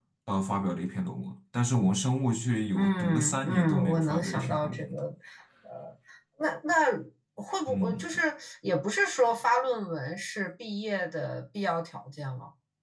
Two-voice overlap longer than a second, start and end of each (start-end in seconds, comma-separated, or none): 2.7-5.0